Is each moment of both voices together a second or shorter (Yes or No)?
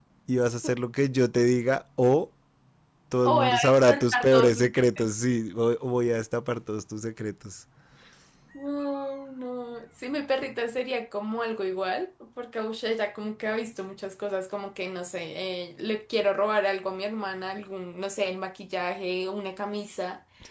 No